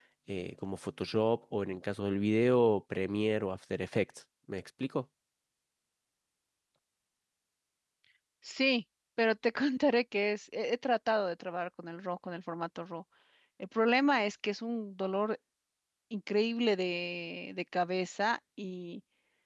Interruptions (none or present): none